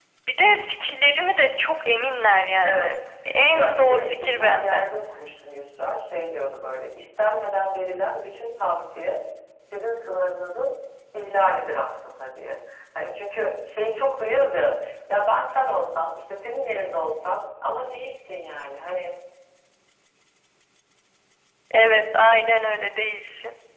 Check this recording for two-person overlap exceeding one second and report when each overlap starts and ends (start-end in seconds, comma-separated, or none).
3.5-4.8